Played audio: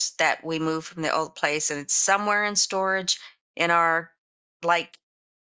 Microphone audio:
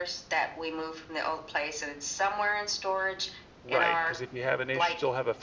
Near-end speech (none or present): present